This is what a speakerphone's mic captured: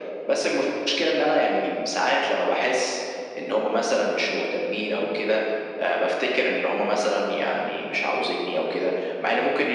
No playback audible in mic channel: No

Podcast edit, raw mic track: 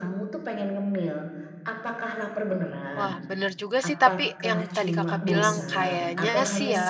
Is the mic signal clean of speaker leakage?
No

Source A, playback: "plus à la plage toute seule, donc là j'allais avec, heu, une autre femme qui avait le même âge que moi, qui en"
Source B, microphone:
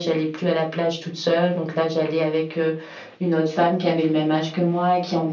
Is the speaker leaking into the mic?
Yes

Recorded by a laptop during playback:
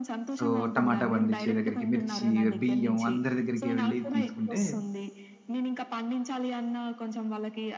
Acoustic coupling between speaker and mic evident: Yes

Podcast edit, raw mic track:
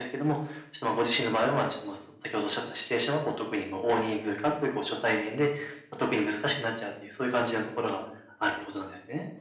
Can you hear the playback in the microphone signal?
Yes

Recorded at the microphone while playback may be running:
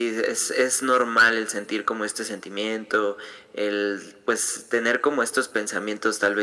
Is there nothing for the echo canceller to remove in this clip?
No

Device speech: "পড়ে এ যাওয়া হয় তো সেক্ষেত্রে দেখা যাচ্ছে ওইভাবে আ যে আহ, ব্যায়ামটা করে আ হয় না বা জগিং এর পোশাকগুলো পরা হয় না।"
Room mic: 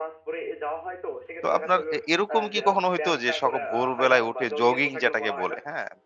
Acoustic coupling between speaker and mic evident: Yes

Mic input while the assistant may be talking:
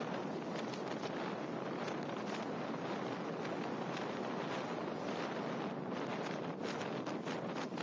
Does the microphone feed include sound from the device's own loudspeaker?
No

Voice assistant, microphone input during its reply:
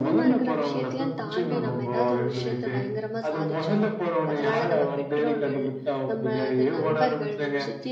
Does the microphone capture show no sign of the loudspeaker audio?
No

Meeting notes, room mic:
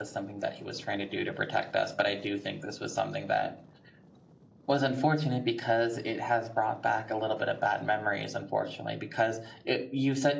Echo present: No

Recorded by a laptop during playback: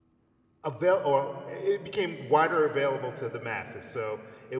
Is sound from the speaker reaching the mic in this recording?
No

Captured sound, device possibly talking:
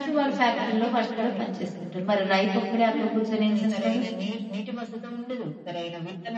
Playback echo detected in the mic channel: Yes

